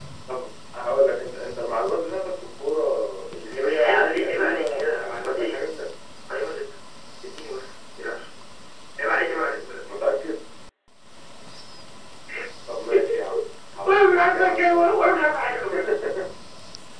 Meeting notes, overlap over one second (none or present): present